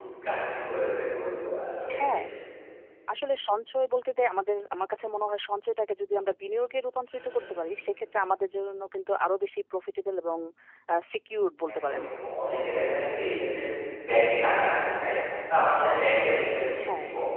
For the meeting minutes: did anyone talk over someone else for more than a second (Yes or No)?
No